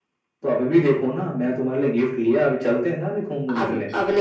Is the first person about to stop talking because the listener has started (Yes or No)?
Yes